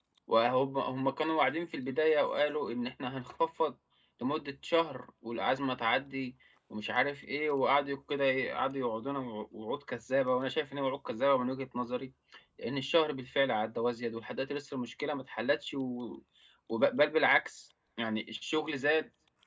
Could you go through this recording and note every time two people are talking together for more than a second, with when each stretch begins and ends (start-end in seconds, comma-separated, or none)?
none